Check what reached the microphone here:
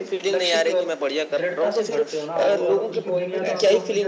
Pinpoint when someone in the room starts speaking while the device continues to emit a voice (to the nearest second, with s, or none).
3 s